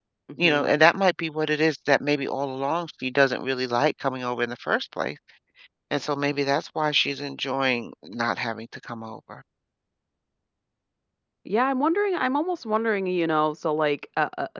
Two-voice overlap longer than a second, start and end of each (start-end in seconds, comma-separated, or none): none